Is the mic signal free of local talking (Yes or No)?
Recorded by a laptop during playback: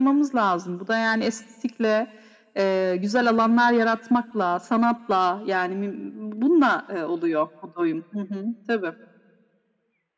Yes